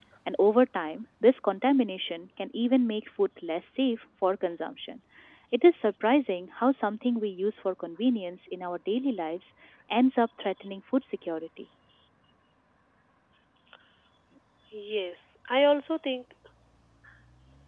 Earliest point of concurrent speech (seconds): none

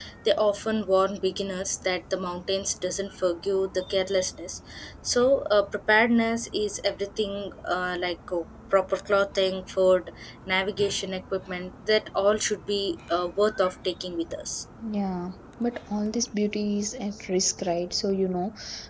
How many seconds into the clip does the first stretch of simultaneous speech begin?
none

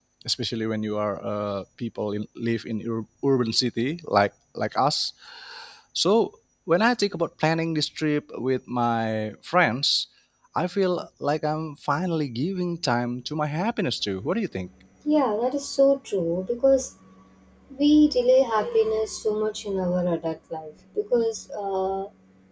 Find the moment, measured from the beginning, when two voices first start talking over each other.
none

